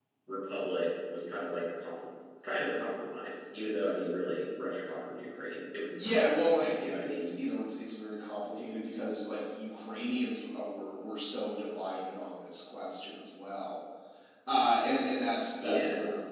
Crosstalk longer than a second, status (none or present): none